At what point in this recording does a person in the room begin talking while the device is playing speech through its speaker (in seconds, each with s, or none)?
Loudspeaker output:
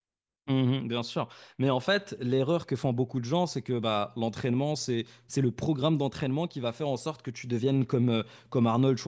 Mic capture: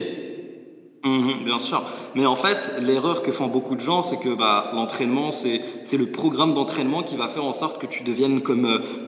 none